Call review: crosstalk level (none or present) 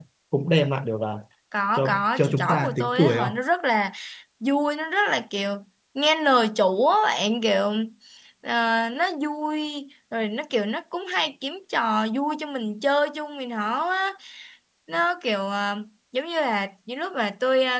present